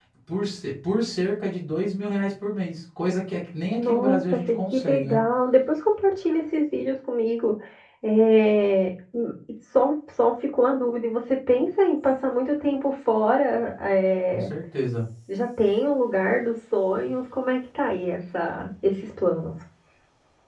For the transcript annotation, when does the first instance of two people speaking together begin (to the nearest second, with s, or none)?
4 s